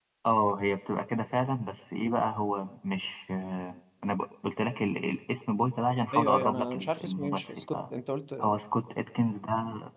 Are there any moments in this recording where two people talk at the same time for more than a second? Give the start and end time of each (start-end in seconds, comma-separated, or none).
6.1-7.8